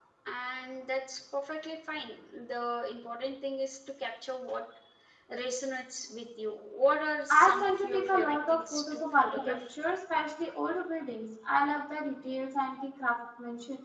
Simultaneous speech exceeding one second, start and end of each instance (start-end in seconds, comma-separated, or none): 7.3-9.6